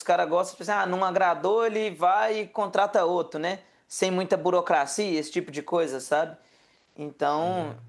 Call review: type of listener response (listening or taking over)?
listening